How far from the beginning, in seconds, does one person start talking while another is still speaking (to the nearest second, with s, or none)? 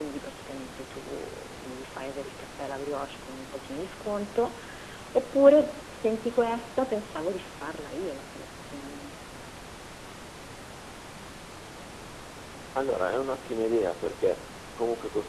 none